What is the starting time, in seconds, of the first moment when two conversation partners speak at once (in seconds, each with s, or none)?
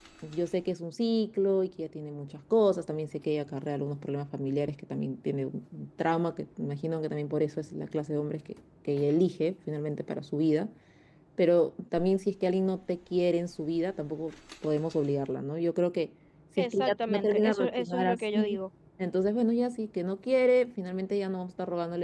16.6 s